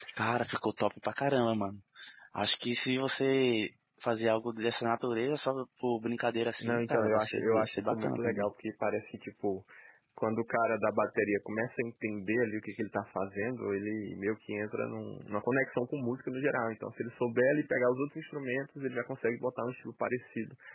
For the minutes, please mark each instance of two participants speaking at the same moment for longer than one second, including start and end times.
6.6-8.5

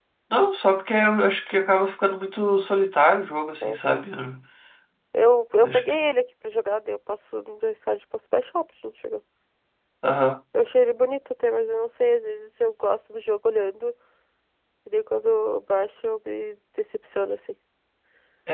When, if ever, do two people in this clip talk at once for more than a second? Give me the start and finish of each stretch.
none

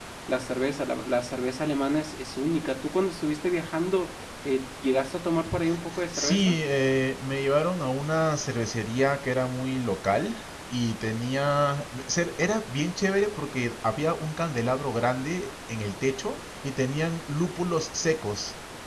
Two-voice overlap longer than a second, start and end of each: none

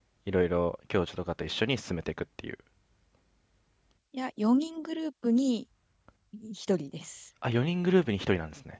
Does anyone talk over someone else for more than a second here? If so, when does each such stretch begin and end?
none

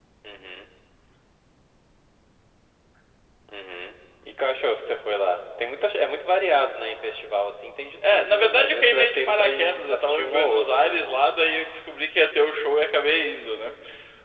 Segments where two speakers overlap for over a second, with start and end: 8.1-11.0

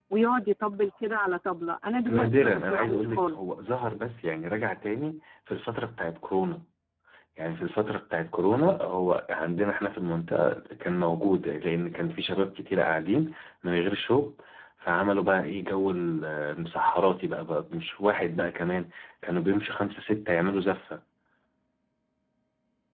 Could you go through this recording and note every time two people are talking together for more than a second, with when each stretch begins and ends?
2.1-3.4

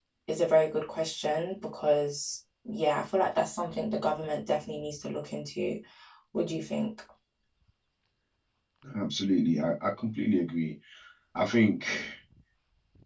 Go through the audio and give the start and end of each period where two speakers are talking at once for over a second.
none

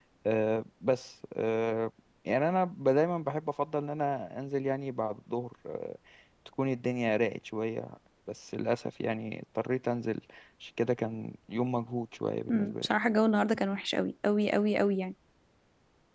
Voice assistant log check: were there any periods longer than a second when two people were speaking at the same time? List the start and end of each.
none

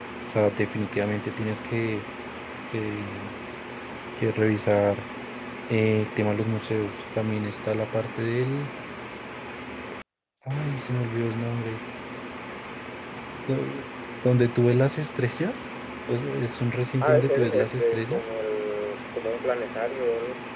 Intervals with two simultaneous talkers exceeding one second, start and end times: 17.0-18.2

